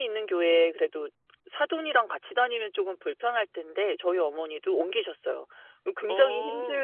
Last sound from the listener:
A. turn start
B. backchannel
B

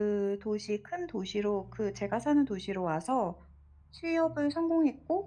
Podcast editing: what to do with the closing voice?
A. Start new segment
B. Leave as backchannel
B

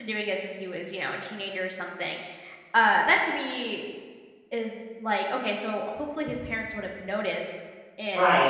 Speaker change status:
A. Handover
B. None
B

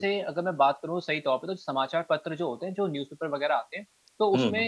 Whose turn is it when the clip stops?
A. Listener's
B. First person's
B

